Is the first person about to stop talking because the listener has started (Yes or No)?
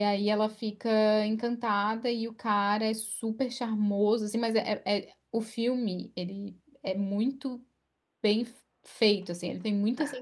No